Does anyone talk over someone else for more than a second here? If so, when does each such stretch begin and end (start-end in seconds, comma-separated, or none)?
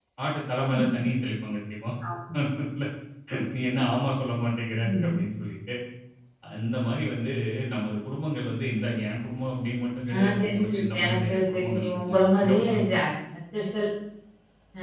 10.1-12.8